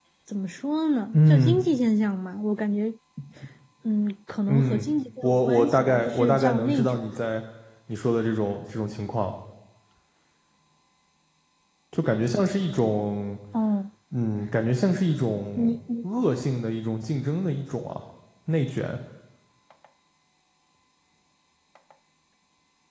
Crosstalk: present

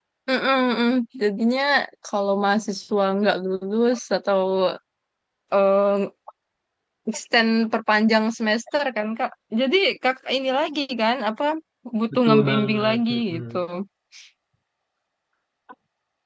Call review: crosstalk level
present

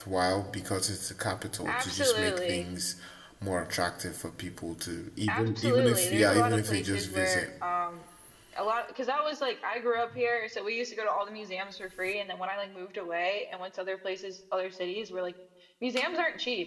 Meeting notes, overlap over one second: present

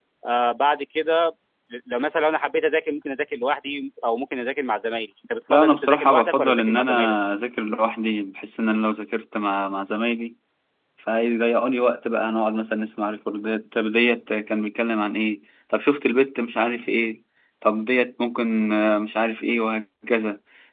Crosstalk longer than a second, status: present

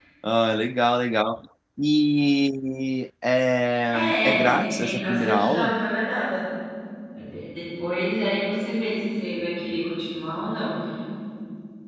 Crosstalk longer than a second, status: present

